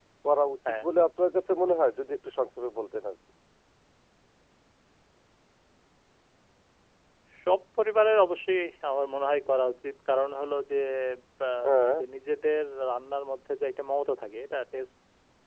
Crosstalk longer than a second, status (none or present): none